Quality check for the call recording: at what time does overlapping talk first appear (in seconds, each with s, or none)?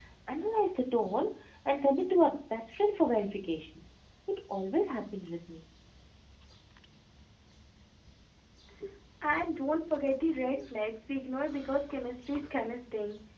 none